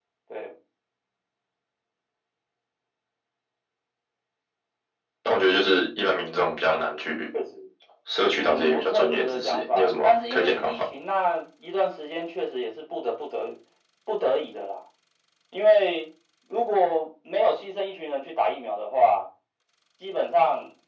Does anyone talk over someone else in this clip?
Yes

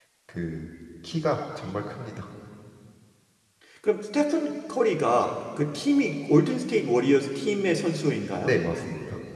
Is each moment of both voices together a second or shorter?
Yes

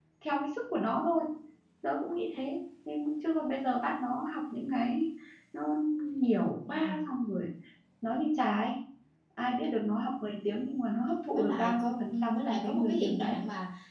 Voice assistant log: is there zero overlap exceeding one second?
No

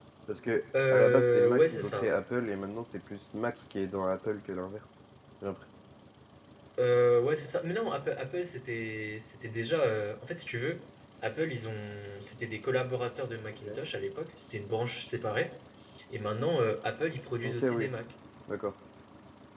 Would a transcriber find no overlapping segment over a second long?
No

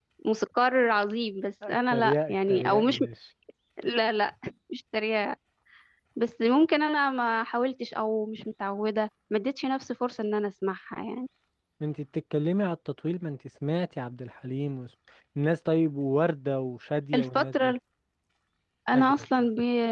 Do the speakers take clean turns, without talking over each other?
No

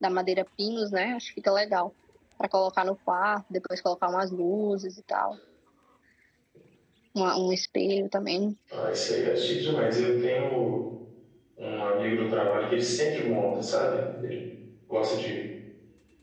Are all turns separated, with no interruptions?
Yes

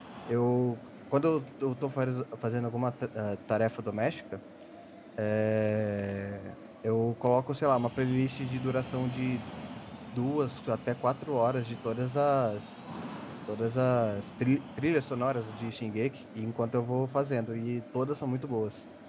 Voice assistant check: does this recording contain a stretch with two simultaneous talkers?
No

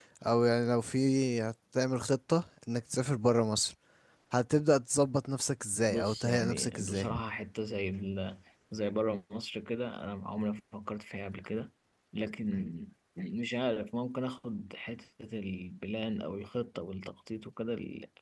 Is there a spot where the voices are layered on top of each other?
Yes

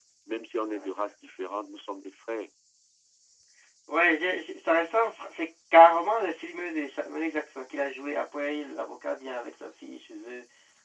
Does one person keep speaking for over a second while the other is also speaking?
No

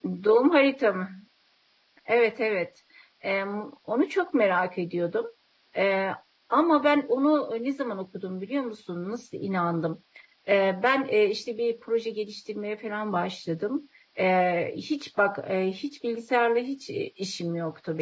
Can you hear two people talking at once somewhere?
No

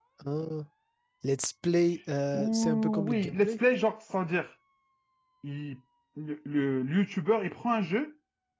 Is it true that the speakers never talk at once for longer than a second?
No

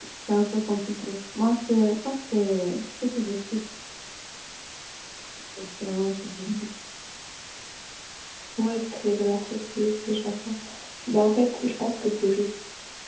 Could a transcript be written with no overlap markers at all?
Yes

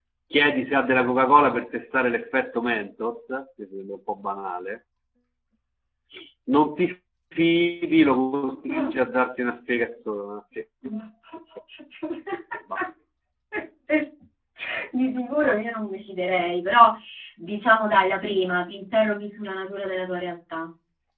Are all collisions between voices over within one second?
Yes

